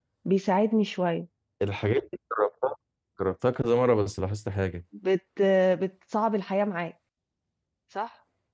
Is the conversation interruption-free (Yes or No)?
Yes